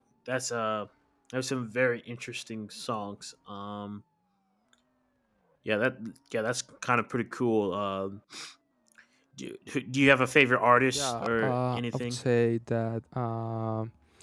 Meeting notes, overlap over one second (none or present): present